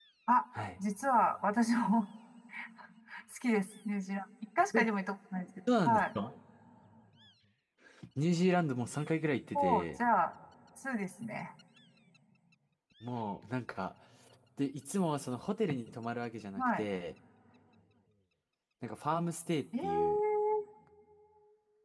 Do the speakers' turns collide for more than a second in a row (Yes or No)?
No